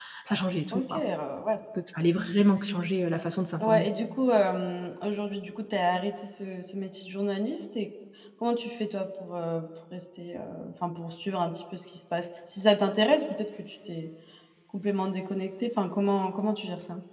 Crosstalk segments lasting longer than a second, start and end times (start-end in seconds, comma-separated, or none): none